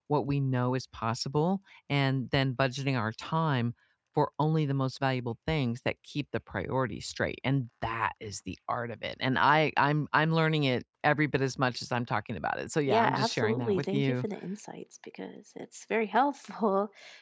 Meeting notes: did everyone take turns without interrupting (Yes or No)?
No